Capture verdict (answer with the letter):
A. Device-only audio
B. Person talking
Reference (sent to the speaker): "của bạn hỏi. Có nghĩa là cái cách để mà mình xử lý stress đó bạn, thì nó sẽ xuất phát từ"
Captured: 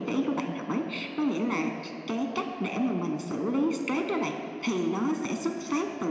A